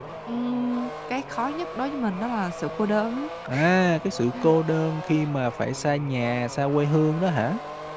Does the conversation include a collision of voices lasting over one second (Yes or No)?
No